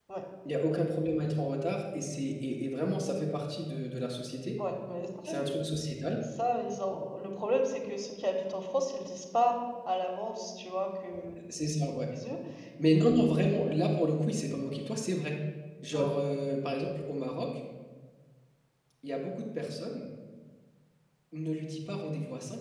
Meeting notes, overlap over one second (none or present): none